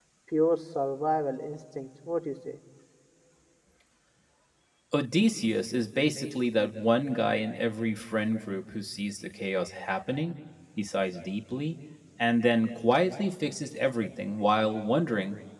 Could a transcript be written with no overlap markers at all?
Yes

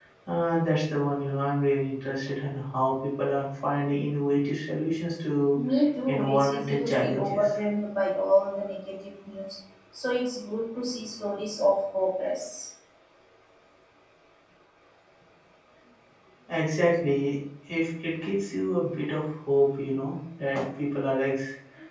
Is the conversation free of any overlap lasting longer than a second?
No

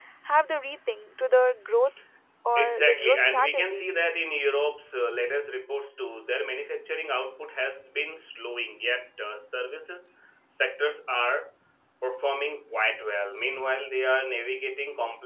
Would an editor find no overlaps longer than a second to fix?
No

